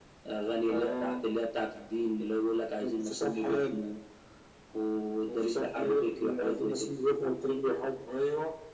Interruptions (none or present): present